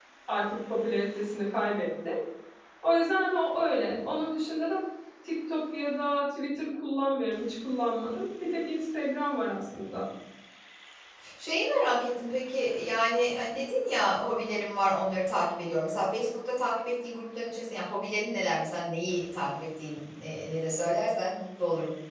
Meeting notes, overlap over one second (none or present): none